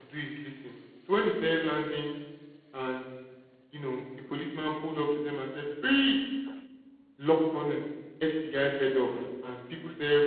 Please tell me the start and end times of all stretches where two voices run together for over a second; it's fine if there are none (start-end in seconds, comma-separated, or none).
none